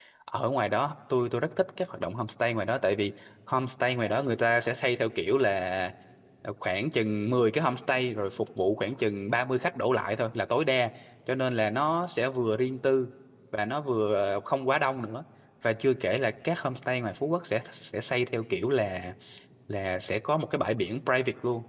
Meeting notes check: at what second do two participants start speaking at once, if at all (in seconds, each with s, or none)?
none